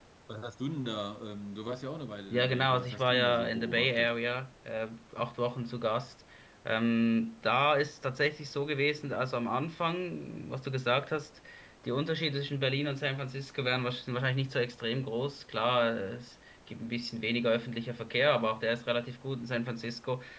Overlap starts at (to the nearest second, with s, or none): 2 s